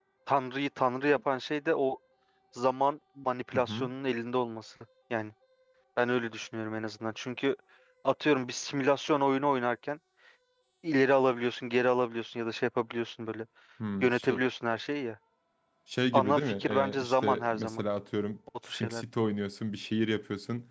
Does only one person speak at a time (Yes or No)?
No